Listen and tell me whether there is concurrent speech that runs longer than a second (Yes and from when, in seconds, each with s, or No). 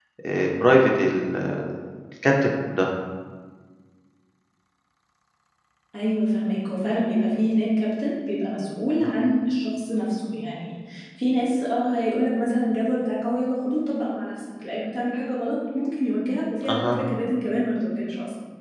No